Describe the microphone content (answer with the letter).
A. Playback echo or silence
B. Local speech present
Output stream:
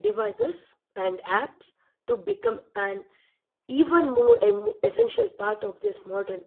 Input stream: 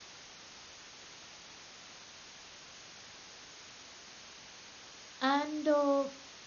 B